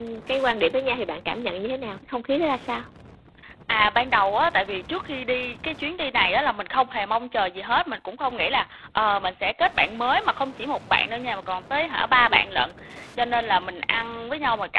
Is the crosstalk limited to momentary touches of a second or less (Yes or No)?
Yes